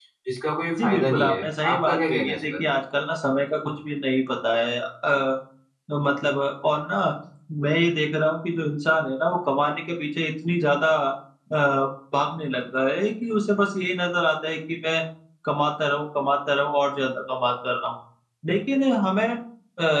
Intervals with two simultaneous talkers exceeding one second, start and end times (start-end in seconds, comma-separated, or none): 0.8-2.4